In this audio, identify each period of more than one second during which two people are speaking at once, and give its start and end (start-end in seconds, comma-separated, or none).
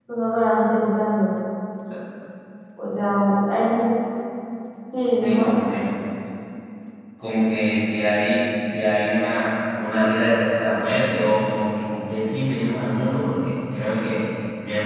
none